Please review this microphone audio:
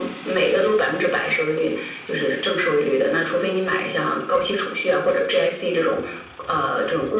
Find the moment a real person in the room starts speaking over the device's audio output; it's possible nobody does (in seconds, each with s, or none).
none